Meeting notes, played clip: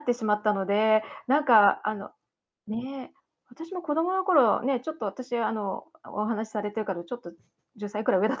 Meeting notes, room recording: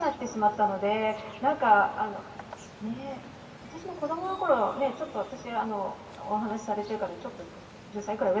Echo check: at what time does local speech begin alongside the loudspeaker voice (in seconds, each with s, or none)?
none